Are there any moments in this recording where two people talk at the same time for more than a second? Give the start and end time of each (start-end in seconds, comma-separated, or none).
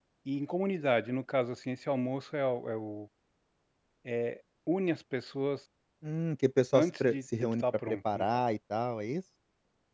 6.8-8.4